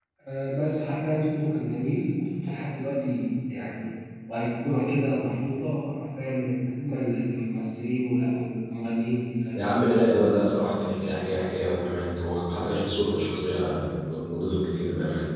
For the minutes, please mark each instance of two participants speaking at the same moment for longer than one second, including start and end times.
none

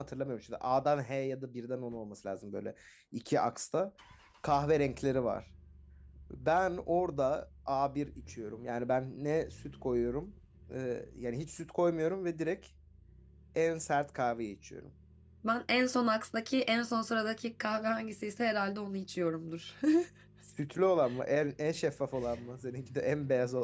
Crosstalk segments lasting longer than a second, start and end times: none

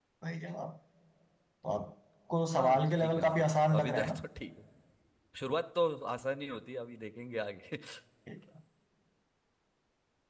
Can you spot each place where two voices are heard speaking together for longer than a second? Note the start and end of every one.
2.5-4.1

